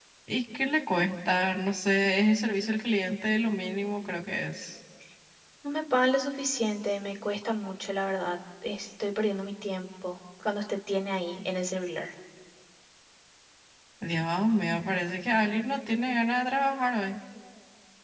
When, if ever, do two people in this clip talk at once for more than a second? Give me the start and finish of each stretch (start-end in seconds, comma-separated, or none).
none